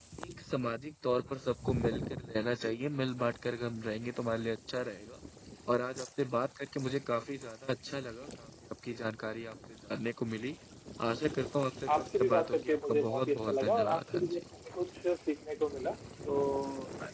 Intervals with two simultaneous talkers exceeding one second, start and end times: 12.0-14.4

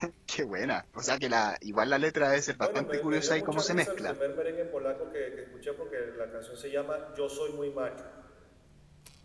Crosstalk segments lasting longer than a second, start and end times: 2.6-4.1

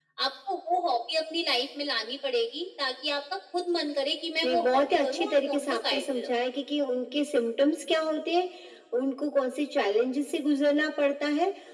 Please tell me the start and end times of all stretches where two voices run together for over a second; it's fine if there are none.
4.4-6.3

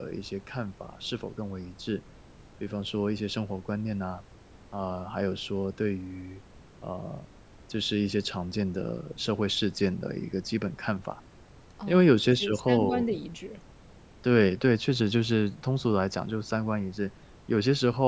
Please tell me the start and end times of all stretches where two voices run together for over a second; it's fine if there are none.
11.9-13.1

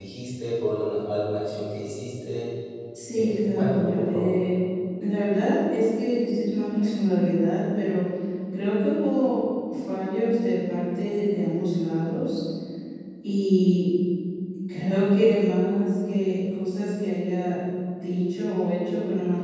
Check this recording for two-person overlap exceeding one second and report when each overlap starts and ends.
3.1-4.4

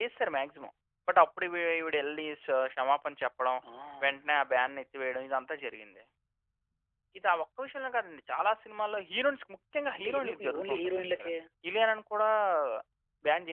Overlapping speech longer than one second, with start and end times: 9.9-11.3

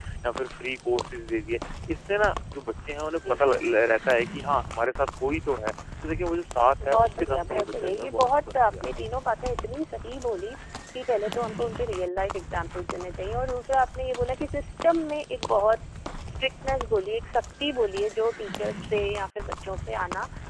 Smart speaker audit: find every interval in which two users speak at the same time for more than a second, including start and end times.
6.8-9.0

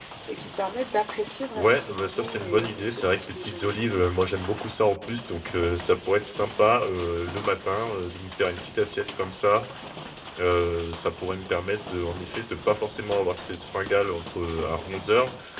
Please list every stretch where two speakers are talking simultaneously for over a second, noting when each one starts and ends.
1.6-3.7

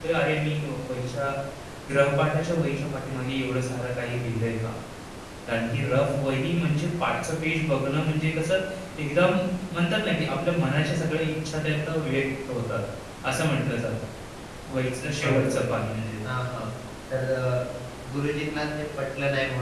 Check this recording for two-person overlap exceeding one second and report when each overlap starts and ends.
none

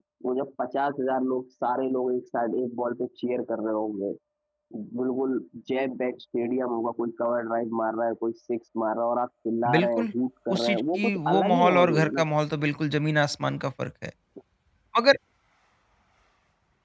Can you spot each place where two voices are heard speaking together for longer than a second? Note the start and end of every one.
10.5-12.2

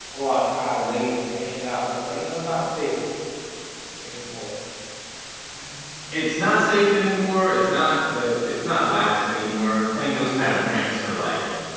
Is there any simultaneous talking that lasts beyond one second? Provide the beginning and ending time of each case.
none

